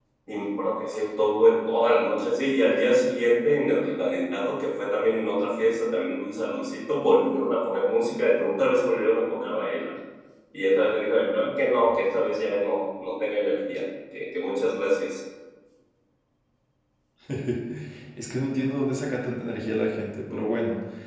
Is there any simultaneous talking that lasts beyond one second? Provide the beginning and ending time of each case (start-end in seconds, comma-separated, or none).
none